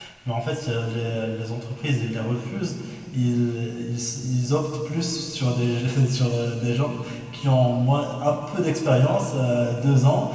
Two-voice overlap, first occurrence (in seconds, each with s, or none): none